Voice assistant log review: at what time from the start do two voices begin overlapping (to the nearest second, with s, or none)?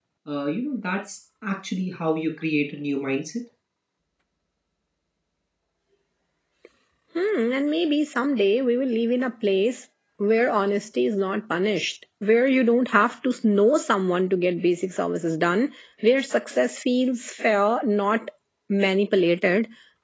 none